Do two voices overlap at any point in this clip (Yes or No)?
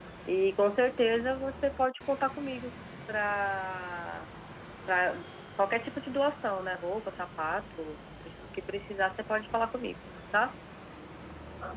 No